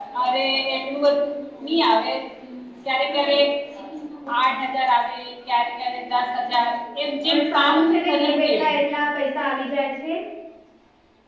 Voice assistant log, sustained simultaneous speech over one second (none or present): present